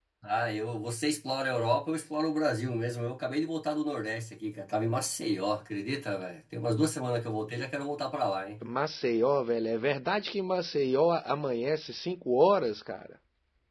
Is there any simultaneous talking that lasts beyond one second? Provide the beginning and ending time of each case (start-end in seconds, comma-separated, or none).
none